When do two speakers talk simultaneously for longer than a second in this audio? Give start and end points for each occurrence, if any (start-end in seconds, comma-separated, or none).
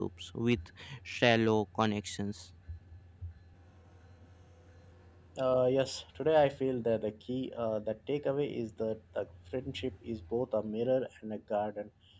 none